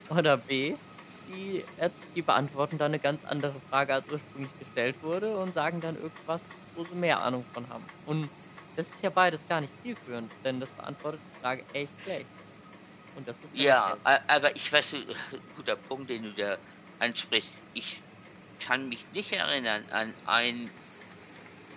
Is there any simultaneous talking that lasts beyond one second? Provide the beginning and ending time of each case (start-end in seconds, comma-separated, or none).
none